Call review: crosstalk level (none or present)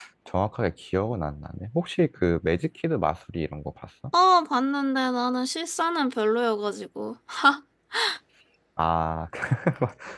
none